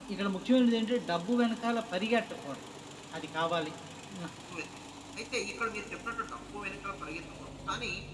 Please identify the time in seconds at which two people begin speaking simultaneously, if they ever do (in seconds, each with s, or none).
none